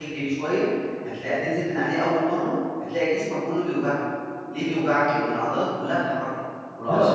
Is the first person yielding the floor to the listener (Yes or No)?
Yes